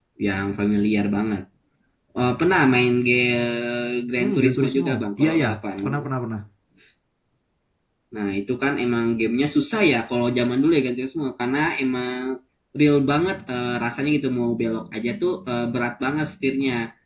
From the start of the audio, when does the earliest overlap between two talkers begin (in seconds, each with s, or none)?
4.2 s